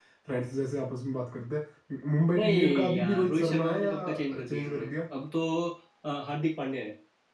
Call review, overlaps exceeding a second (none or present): present